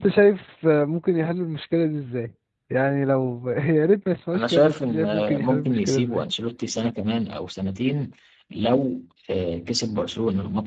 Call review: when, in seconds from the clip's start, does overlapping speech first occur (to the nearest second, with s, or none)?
4 s